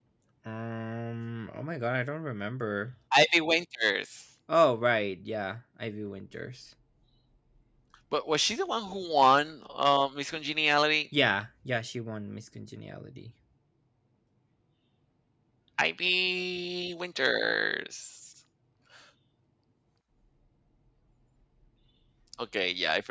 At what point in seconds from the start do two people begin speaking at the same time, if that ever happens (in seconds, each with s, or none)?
none